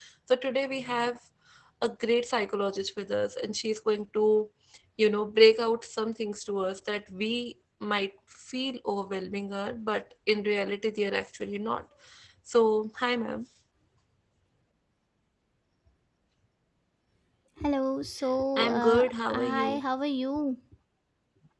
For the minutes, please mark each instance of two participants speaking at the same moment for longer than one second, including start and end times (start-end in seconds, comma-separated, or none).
18.6-19.8